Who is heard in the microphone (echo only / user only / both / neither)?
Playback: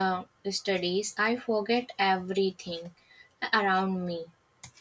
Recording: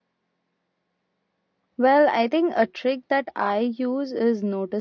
user only